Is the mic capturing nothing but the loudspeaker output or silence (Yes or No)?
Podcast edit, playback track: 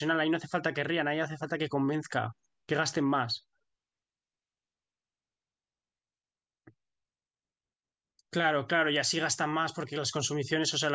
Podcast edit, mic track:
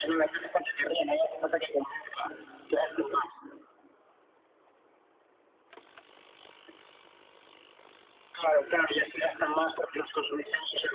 Yes